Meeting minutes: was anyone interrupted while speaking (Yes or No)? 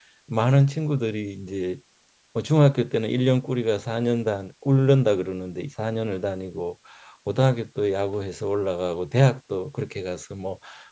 No